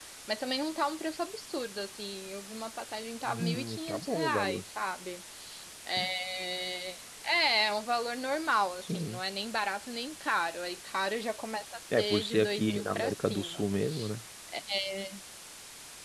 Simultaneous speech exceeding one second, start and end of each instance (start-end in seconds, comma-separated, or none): 3.3-4.6, 12.0-13.6